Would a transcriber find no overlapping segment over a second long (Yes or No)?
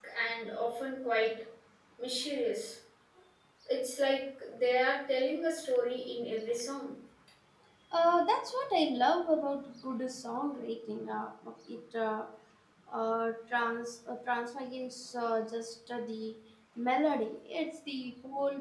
Yes